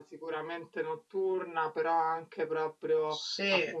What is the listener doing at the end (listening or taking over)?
listening